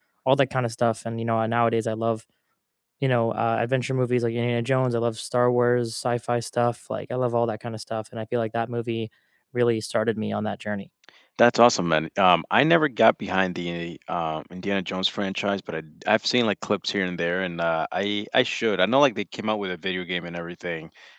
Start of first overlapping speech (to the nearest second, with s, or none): none